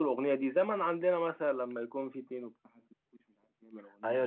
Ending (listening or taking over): taking over